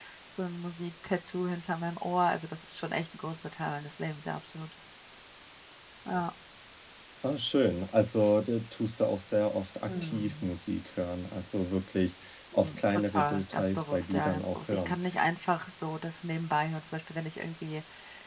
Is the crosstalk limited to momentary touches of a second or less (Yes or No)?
No